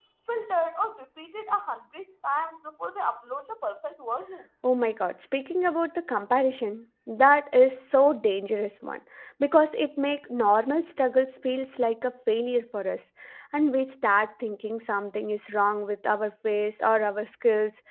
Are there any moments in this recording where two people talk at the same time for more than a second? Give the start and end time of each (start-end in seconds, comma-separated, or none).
none